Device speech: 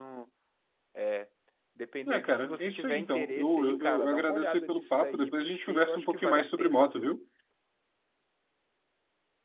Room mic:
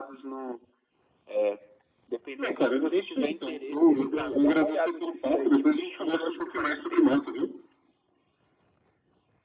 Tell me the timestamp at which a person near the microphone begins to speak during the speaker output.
none

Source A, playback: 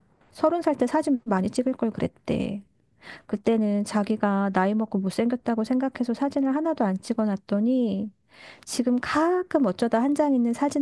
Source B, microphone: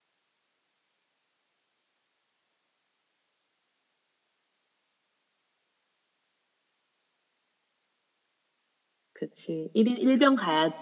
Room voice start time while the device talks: 9.2 s

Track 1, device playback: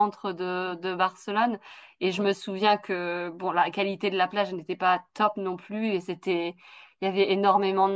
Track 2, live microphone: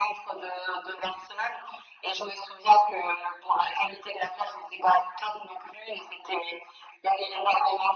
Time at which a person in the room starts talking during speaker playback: none

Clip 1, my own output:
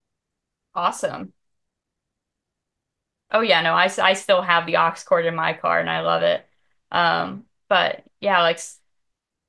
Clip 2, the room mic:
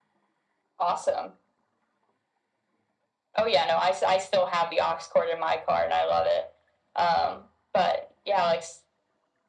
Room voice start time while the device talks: none

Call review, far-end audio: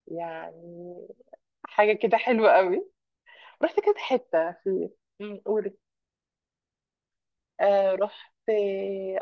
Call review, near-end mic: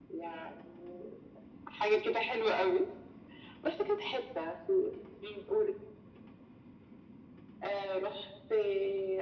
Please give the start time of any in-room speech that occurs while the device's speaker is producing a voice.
none

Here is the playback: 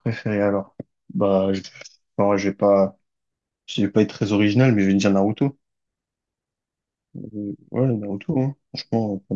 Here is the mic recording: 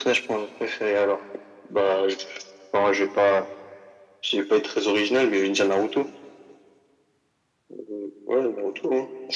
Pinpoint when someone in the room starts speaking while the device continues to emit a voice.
none

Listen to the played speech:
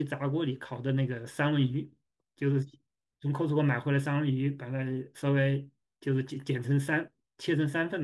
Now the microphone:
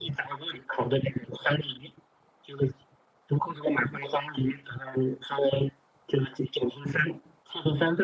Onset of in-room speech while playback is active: none

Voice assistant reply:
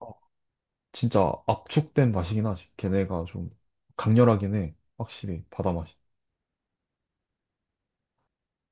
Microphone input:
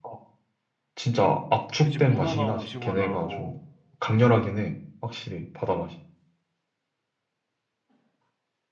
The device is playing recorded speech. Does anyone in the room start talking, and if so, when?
1.8 s

